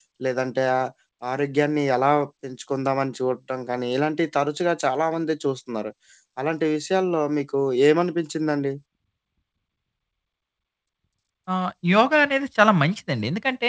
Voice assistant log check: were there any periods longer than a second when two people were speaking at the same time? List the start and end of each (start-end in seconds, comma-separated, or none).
none